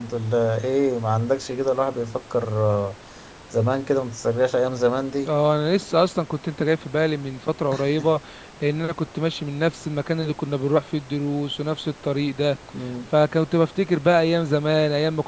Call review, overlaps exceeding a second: none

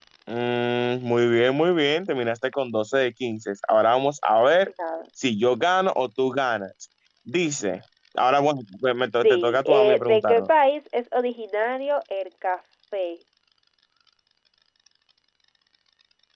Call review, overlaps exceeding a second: present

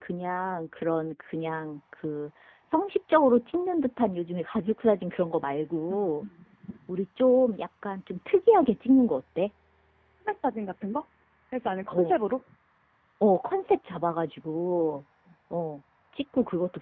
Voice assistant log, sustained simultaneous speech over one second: none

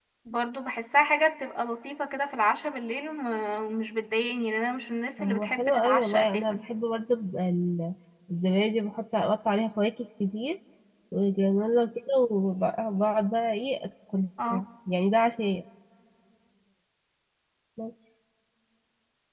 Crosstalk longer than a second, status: present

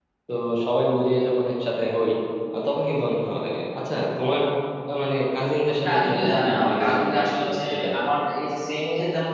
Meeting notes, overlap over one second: present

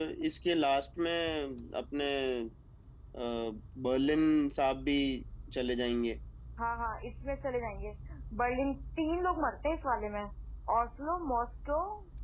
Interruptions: none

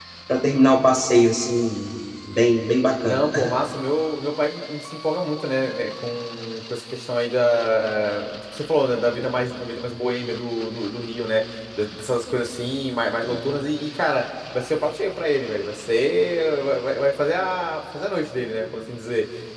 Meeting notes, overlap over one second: none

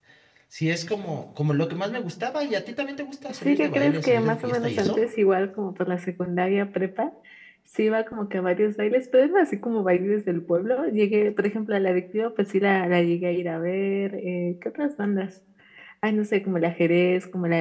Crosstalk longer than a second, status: present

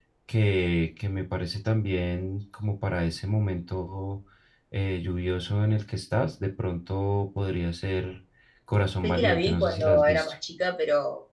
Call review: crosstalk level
present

